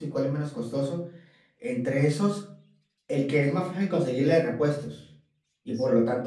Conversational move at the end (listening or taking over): listening